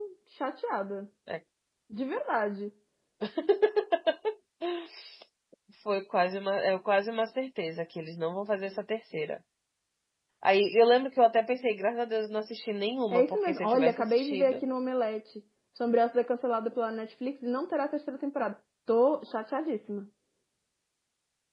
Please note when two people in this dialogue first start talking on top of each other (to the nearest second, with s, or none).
13 s